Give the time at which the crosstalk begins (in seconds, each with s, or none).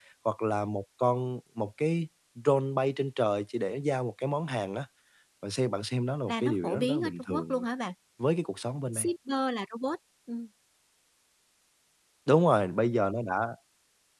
6.3 s